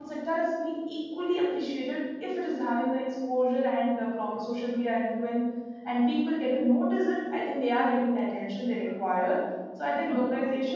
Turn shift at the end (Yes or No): No